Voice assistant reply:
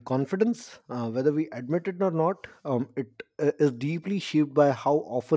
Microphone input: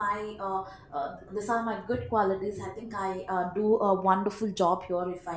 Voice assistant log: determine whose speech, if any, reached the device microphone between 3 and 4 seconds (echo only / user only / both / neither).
user only